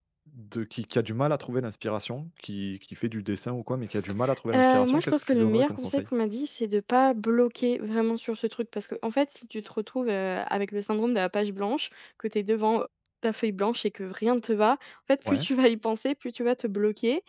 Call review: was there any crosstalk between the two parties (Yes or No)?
Yes